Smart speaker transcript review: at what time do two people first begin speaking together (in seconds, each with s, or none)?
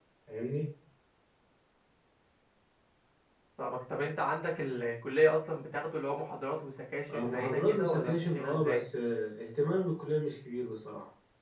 7.1 s